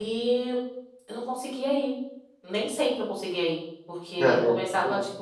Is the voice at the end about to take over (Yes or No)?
No